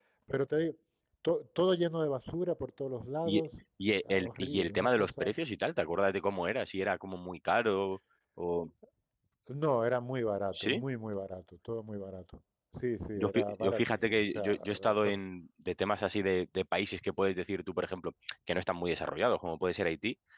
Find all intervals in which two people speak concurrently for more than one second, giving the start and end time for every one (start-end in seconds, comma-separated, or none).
4.1-5.3, 13.2-15.2